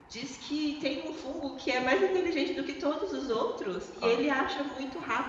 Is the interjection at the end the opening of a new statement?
No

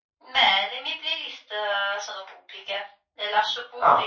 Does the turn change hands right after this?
No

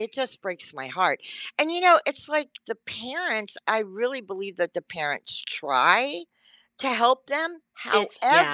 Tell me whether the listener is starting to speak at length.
No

